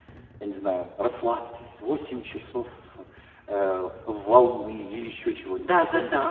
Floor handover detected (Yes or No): Yes